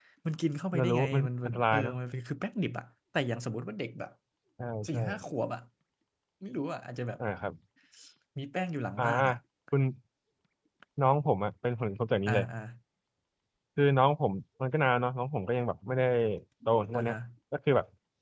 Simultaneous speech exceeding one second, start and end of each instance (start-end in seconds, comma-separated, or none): 0.7-2.0